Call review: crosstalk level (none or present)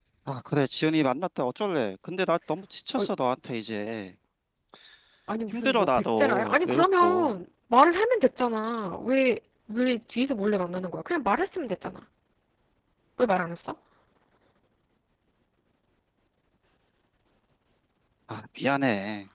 present